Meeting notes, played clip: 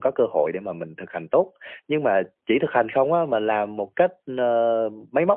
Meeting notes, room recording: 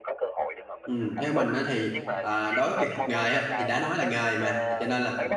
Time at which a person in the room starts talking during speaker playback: 0.8 s

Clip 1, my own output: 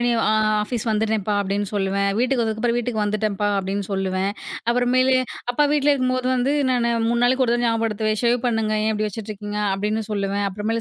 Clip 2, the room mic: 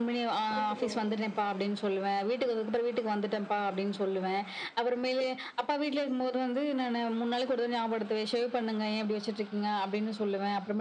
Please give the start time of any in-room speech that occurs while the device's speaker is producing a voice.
0.6 s

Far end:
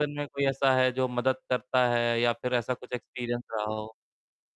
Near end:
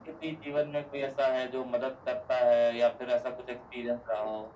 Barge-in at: none

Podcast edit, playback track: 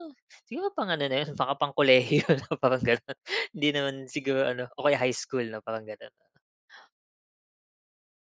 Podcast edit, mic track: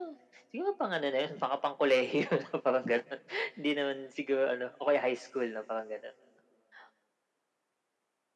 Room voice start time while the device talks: none

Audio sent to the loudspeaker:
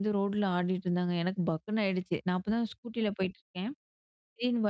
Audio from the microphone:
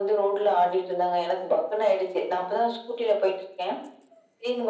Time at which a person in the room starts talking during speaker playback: none

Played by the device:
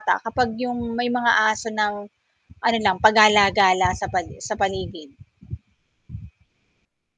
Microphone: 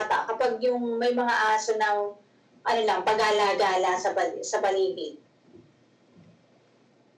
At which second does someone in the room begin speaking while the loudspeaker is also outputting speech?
none

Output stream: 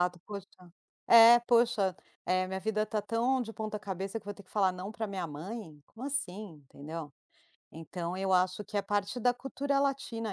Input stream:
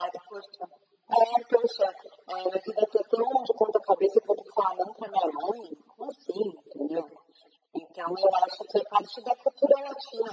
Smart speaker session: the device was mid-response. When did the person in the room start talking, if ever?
none

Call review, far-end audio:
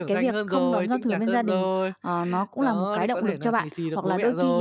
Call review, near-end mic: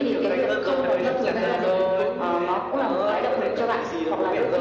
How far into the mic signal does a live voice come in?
0.8 s

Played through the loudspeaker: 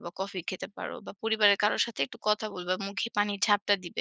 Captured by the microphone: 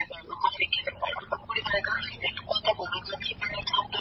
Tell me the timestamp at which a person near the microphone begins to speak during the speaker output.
none

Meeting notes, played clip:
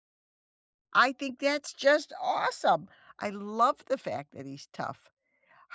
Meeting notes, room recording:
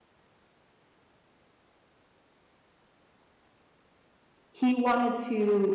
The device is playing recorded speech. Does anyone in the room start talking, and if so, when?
4.6 s

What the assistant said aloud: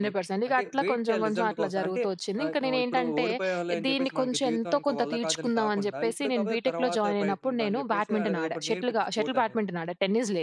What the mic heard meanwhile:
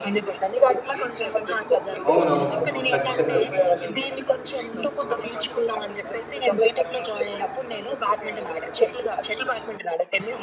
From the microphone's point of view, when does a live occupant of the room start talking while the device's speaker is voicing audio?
2.1 s

